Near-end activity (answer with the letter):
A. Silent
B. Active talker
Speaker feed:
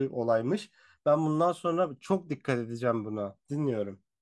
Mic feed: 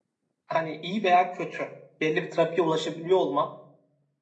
B